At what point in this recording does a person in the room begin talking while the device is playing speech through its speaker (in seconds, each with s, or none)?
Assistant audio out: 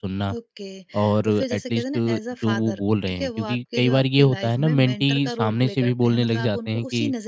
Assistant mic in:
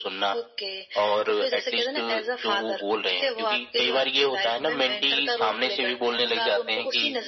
none